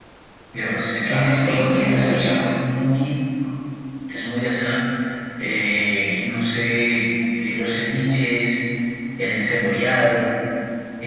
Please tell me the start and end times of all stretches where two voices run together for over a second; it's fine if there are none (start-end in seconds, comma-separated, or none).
1.1-2.5